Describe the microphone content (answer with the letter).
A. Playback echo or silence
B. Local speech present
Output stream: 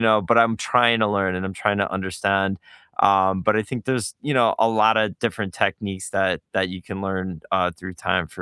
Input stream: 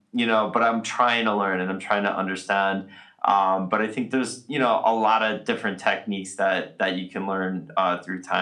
A